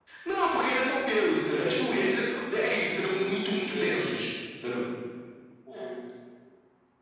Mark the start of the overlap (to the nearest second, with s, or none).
3 s